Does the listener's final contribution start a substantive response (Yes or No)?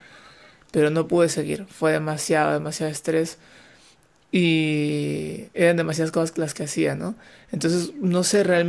No